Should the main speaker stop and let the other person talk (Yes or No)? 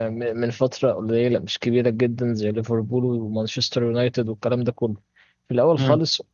No